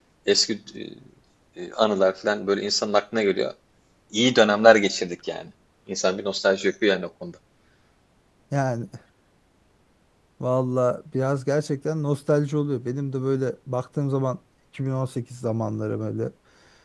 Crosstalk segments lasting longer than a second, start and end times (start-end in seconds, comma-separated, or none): none